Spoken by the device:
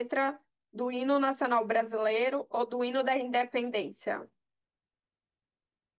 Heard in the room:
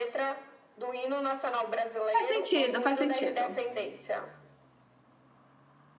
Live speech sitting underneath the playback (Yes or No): No